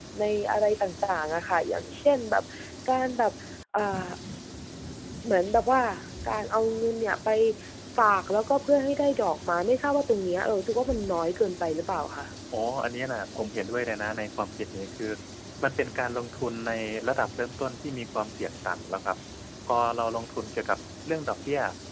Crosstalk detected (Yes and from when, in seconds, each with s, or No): No